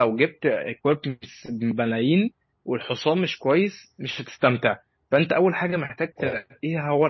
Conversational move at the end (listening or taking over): listening